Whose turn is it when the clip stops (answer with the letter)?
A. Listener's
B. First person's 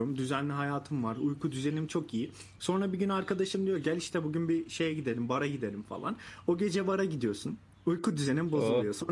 B